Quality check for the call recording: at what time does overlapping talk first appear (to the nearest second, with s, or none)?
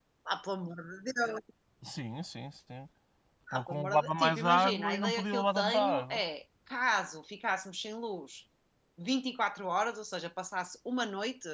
4 s